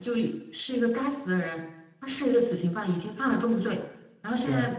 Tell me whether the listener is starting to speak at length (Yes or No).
No